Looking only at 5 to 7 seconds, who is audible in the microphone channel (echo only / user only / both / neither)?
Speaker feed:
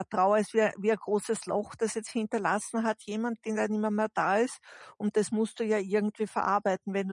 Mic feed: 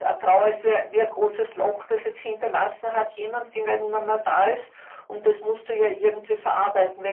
echo only